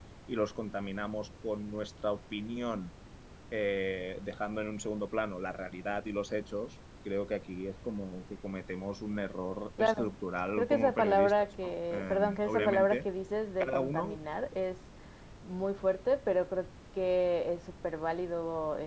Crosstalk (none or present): present